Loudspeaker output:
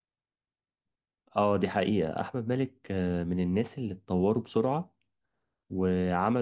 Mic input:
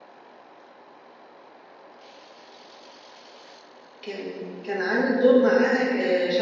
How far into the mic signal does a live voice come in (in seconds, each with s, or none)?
4.0 s